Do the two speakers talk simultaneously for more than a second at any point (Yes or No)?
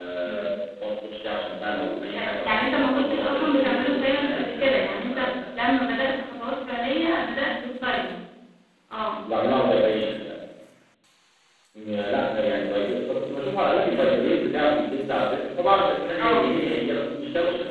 Yes